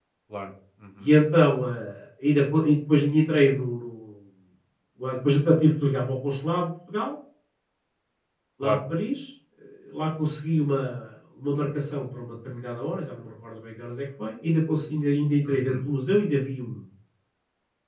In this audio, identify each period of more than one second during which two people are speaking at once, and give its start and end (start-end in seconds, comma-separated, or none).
none